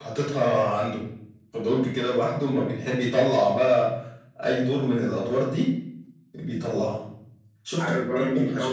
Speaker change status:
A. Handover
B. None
A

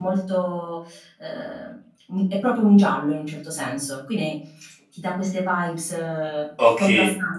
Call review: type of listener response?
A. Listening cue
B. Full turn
B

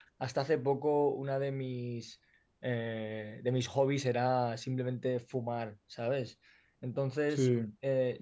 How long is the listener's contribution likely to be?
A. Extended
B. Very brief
B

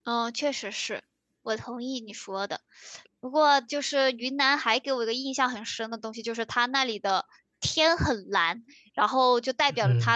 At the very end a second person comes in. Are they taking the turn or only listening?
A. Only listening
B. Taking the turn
A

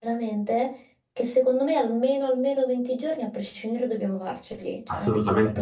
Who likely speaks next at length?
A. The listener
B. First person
A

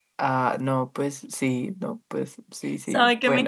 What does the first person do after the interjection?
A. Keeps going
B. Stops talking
B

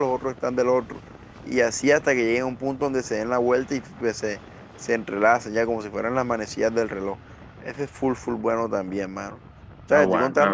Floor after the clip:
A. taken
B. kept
B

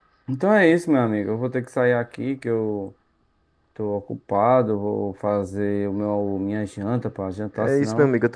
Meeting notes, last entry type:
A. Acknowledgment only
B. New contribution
B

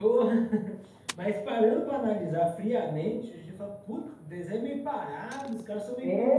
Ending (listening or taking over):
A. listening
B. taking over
B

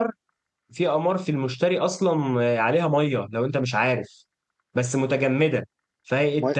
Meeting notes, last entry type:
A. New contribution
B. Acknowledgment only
A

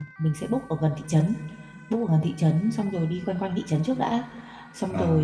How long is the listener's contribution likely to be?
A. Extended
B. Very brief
B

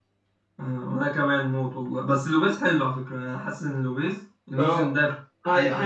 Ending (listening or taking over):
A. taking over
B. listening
A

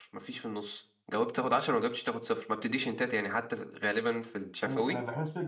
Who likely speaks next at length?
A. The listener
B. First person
A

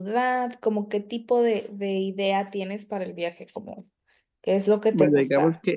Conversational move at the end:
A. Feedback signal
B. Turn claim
B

